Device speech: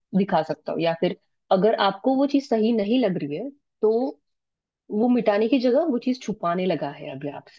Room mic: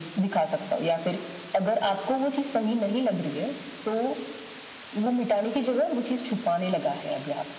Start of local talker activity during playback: none

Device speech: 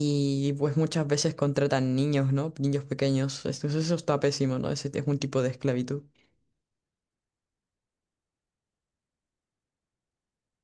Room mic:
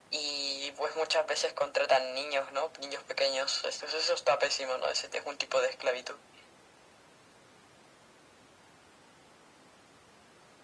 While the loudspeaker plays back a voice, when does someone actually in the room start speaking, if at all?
none

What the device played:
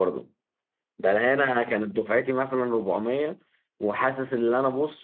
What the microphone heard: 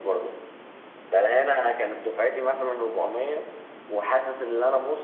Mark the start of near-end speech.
none

